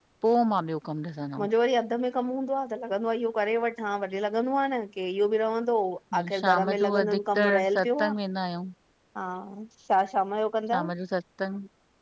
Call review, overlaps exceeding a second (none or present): present